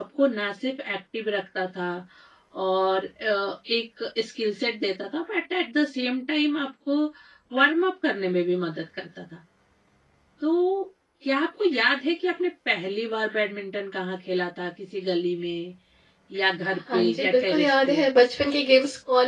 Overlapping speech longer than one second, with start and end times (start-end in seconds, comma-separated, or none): 16.7-18.0